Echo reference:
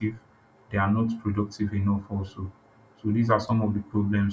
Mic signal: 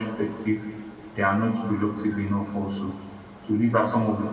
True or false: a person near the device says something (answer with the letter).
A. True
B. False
B